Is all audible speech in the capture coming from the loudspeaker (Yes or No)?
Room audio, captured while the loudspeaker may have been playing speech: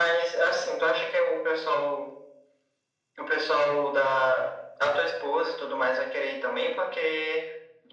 Yes